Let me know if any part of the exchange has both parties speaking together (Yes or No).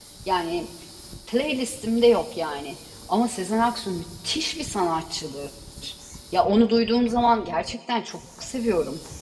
No